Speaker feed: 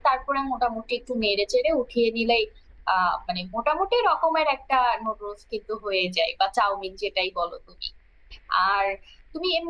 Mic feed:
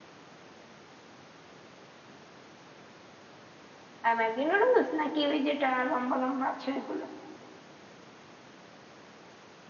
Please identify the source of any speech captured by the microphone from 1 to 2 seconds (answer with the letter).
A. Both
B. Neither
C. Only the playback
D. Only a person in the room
B